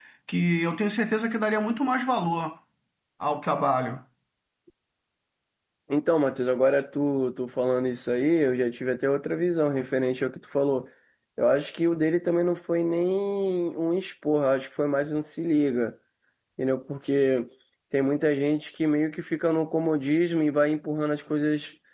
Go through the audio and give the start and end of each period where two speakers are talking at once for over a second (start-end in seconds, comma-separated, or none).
none